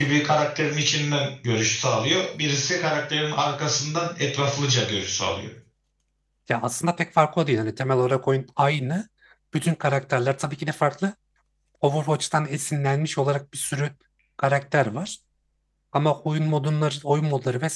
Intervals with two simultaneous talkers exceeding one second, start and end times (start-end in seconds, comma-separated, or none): none